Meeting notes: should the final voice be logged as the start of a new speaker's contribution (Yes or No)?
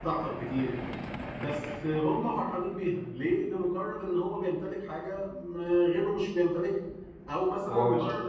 No